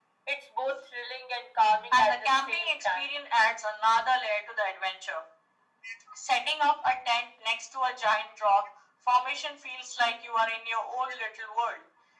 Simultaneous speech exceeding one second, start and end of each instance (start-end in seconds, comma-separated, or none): 1.9-3.1